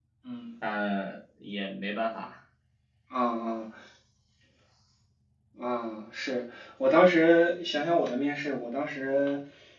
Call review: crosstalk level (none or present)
none